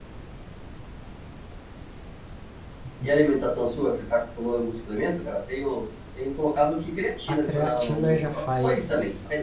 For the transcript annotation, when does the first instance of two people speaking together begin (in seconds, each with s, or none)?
7.3 s